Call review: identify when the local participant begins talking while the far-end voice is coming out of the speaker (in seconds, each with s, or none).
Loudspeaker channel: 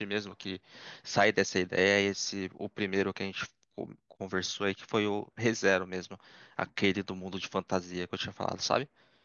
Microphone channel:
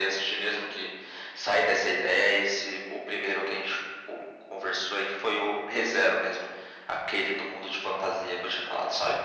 none